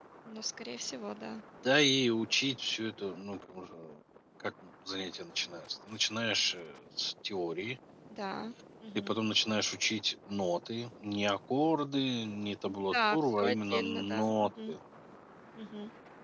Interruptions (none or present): present